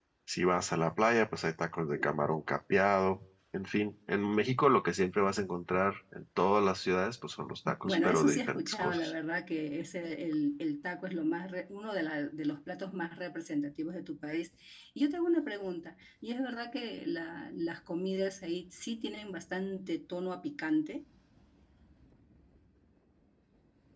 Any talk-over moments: Yes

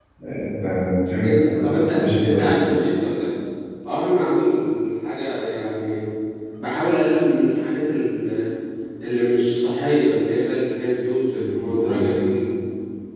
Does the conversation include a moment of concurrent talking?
Yes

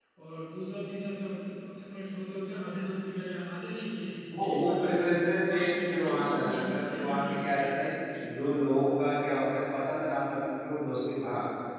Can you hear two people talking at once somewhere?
Yes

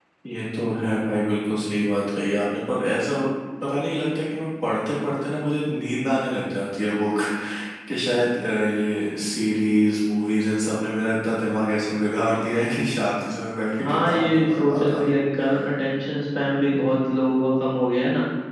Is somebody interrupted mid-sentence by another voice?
Yes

